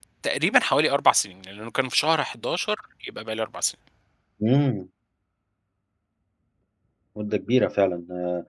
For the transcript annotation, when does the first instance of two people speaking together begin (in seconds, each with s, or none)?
none